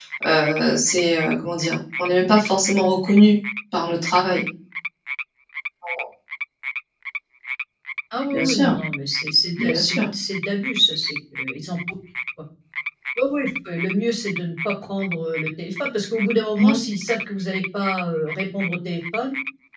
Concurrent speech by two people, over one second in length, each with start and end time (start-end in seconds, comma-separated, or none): none